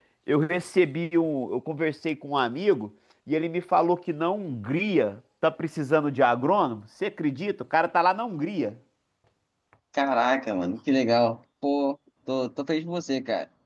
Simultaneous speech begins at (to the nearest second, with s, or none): none